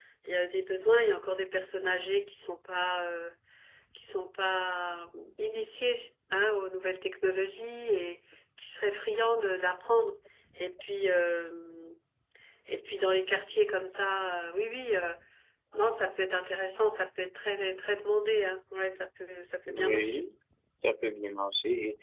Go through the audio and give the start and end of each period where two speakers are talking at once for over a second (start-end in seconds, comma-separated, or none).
none